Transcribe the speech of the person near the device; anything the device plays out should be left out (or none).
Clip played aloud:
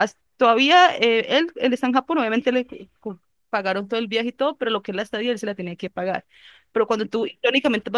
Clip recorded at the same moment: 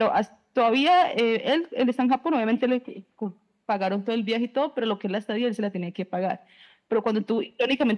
none